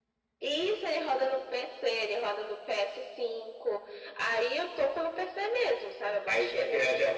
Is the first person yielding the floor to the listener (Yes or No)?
Yes